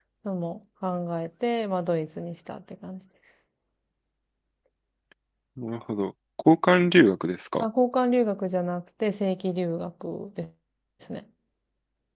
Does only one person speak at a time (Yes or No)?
Yes